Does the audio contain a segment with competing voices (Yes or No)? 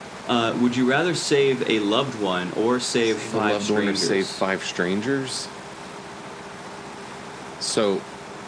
Yes